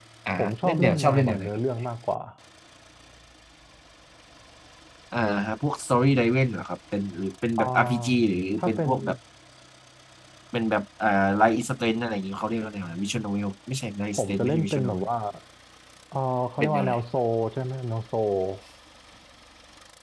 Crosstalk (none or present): present